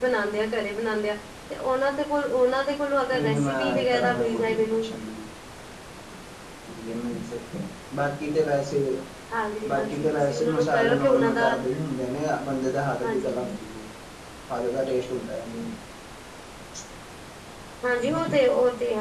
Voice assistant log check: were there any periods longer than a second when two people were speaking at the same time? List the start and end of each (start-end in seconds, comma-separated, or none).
3.1-4.9, 9.7-11.5